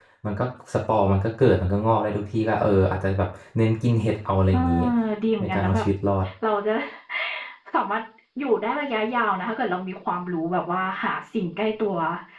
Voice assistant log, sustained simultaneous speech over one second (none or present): none